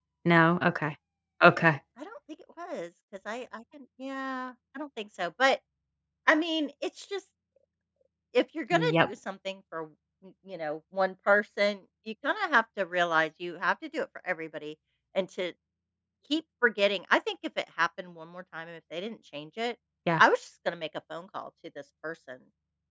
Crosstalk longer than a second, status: none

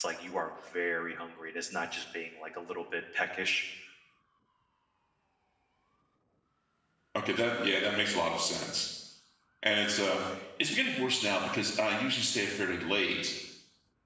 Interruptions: none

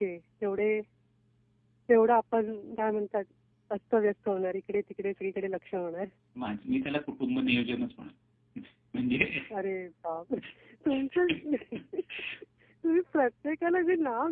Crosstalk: none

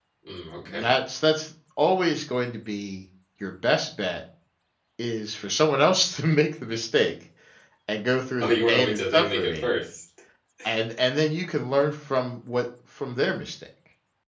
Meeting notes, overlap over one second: present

